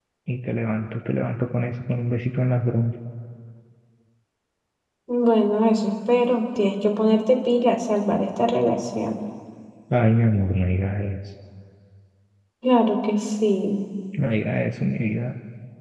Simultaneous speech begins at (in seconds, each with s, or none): none